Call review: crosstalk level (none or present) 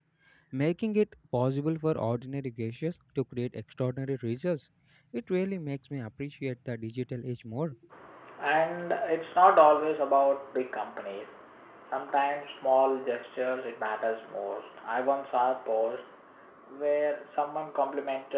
none